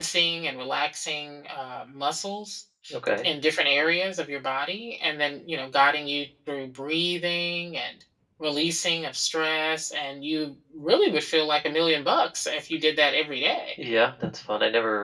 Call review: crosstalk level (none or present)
none